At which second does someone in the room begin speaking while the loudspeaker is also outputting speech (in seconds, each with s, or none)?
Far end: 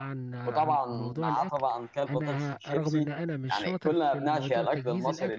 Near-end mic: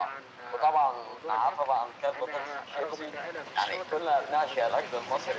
none